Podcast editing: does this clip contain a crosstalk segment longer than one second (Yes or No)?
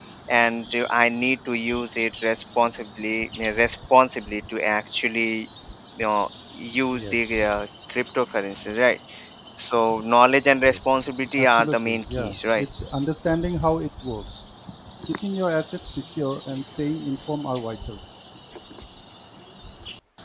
Yes